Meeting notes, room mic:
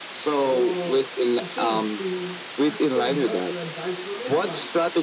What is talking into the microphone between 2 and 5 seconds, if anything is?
echo only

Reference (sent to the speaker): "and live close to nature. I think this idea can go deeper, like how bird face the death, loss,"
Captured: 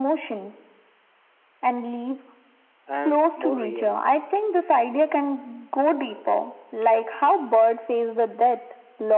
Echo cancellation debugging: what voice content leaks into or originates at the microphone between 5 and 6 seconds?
echo only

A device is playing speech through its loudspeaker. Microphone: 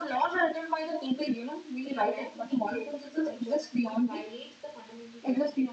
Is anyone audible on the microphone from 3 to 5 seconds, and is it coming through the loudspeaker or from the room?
both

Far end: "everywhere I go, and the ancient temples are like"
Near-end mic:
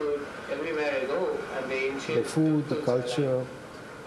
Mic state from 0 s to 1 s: echo only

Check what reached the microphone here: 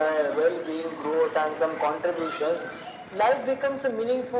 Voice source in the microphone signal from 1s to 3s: echo only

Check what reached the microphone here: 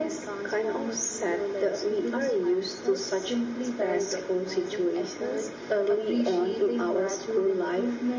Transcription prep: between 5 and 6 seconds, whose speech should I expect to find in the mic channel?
echo only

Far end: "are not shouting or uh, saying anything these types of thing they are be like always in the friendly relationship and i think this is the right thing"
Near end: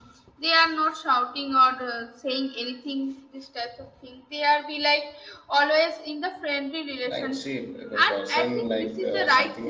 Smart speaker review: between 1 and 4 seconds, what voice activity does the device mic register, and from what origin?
echo only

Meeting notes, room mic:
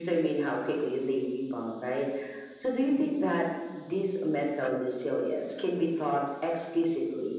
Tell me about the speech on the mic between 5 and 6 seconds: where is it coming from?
echo only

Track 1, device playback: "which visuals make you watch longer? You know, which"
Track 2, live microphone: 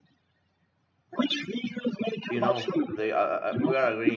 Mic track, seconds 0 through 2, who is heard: echo only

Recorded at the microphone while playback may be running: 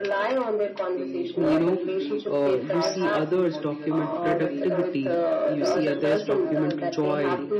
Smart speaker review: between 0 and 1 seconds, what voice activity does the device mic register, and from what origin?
echo only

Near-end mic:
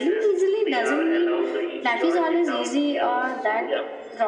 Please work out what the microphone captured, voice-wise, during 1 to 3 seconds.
echo only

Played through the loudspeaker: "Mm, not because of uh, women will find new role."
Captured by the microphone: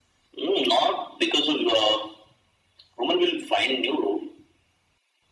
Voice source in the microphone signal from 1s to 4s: echo only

